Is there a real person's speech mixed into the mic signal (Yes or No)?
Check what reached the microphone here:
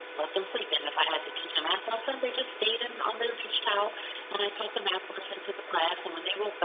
No